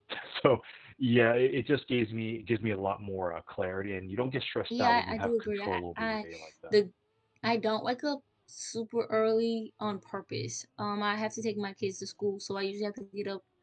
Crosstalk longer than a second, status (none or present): present